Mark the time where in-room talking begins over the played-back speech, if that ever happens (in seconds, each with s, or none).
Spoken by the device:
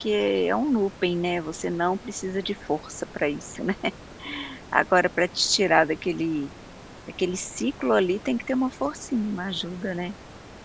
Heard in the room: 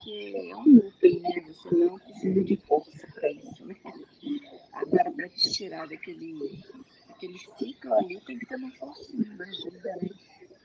none